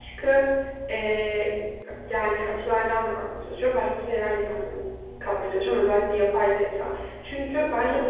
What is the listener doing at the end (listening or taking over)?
listening